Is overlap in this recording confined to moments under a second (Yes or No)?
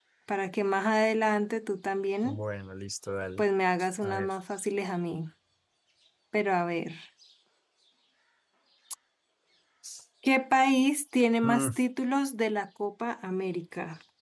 Yes